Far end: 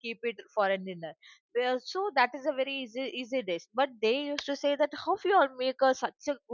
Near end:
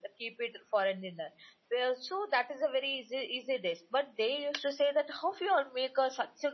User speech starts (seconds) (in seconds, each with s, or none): none